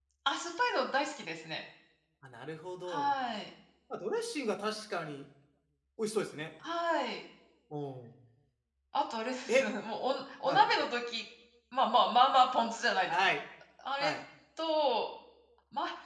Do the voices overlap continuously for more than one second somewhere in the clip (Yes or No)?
No